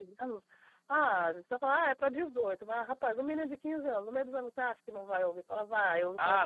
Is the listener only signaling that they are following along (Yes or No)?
No